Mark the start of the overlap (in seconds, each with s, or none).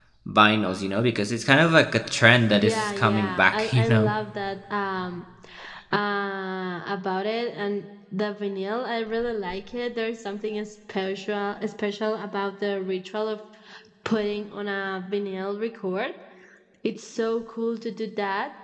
2.5 s